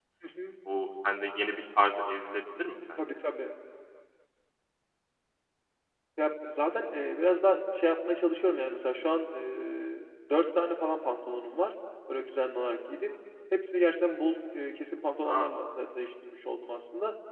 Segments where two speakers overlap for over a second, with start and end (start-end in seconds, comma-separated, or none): none